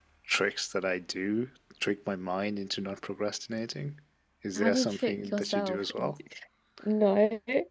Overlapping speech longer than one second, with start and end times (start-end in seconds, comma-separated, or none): 4.6-6.1